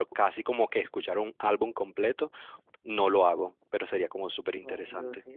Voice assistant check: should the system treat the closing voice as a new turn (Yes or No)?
Yes